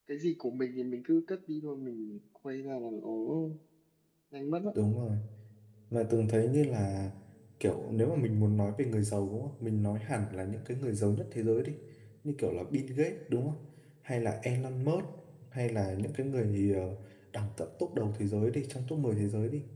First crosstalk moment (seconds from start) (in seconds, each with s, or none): none